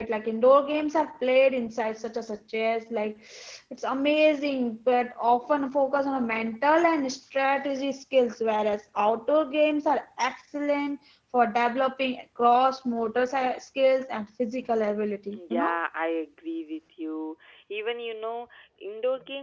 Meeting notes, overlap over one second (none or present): none